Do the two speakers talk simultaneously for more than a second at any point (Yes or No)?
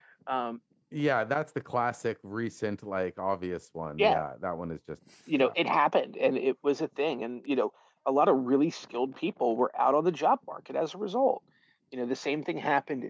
No